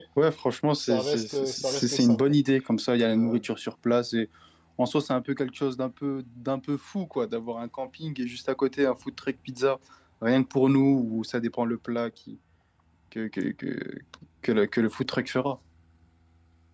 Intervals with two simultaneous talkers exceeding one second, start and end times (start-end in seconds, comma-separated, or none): 0.7-2.2